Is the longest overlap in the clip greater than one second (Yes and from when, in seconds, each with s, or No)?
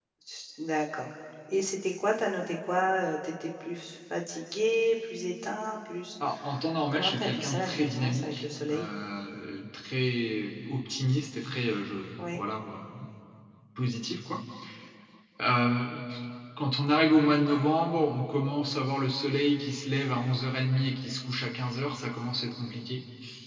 Yes, from 6.9 s